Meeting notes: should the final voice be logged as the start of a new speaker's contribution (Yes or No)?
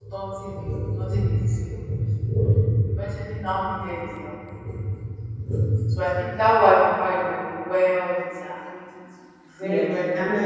Yes